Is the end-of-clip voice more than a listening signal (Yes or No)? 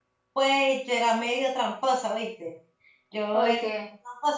No